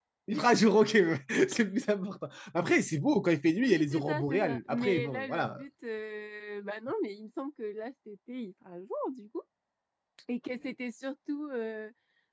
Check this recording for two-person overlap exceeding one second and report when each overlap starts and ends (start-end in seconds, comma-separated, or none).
3.7-5.6